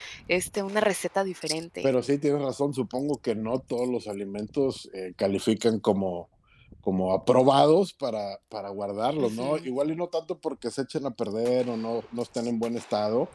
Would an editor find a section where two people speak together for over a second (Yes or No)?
No